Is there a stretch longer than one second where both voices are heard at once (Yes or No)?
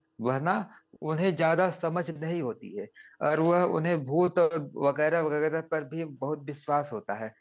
No